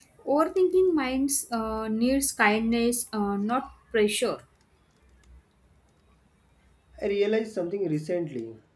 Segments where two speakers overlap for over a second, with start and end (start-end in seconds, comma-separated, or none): none